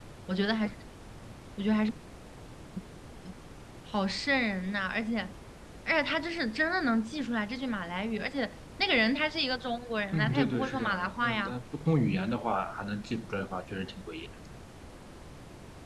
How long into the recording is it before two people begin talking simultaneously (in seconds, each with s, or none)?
10.1 s